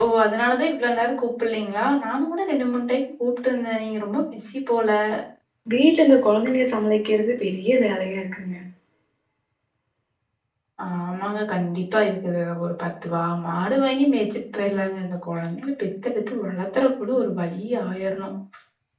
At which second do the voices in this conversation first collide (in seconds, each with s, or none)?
none